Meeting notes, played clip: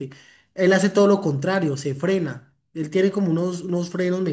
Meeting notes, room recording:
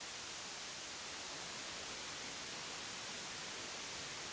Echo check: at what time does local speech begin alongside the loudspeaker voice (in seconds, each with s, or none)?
none